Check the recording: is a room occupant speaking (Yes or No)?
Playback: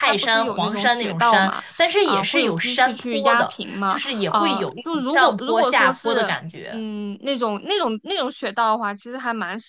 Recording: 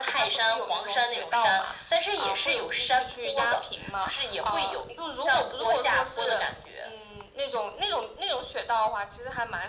No